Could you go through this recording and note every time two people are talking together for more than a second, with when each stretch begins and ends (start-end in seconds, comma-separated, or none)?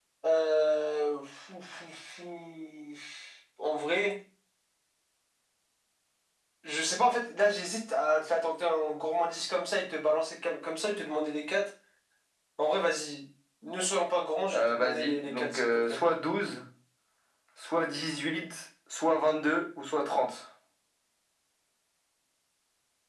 14.5-16.0